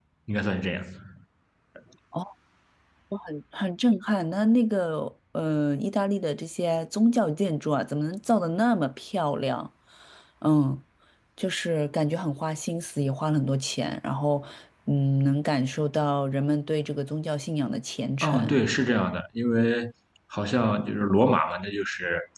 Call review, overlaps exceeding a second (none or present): none